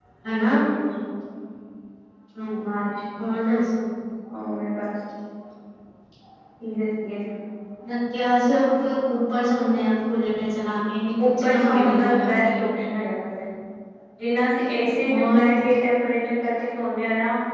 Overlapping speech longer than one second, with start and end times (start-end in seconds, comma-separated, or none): 11.4-12.6